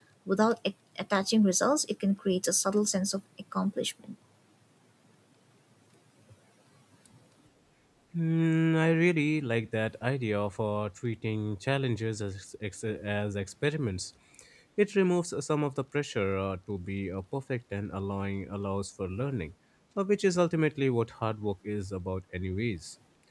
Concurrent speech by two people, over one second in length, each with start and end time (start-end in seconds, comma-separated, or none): none